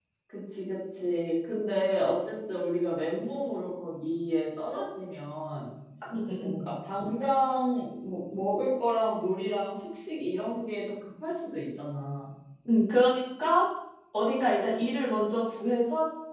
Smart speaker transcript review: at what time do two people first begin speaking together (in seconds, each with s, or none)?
none